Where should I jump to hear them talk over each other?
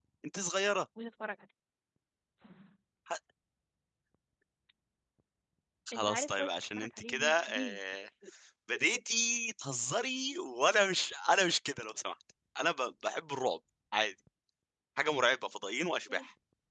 5.9 s

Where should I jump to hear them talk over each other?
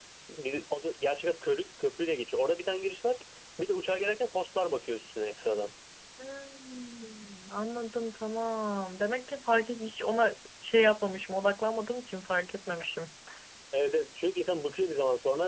none

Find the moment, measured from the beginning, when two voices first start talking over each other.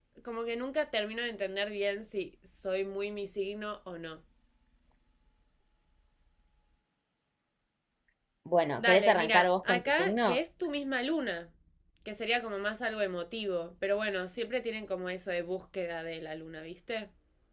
8.8 s

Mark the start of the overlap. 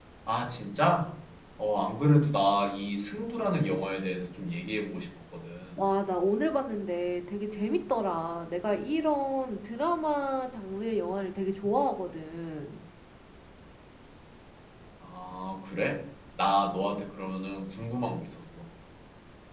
none

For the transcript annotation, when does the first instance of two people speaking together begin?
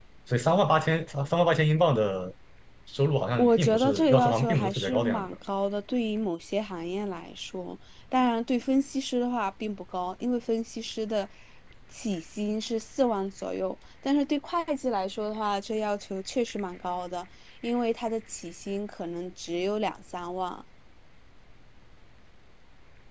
3.4 s

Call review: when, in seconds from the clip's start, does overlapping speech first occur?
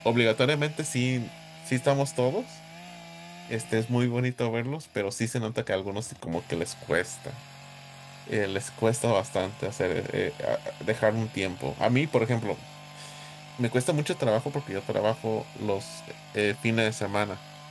none

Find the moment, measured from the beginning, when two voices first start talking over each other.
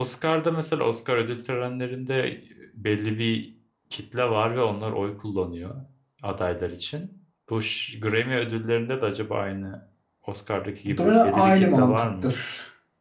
10.9 s

